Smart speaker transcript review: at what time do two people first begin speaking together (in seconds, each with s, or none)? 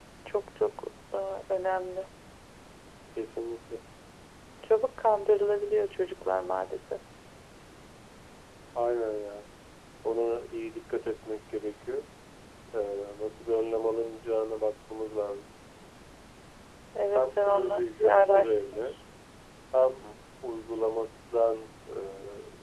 17.2 s